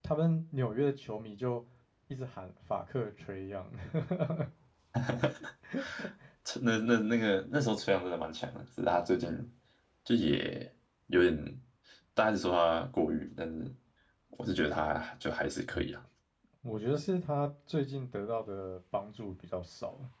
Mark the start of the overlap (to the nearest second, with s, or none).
none